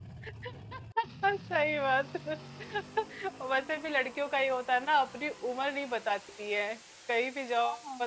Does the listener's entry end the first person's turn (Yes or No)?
No